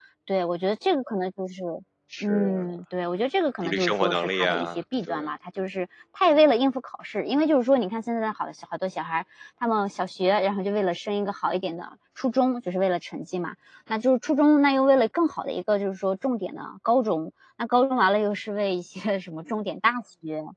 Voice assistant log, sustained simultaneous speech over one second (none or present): present